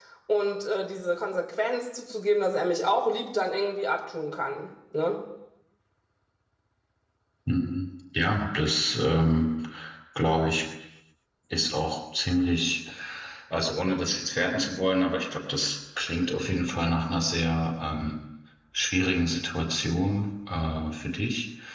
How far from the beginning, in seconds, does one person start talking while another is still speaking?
none

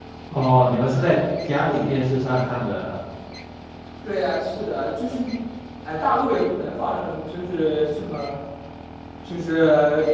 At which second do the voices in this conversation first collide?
none

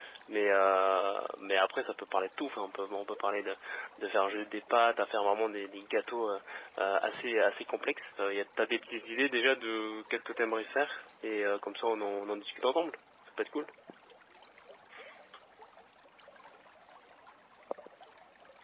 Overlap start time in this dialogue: none

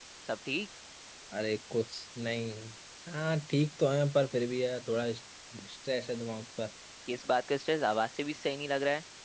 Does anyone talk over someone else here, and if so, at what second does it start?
none

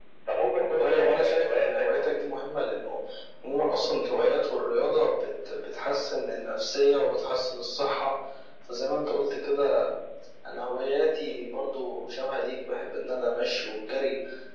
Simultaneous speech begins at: 1 s

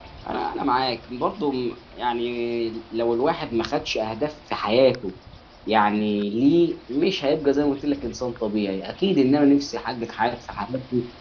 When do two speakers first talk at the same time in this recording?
none

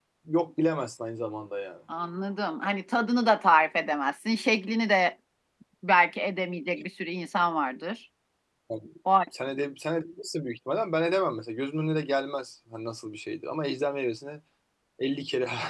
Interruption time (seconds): none

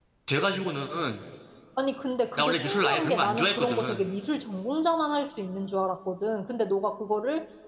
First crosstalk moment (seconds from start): 2 s

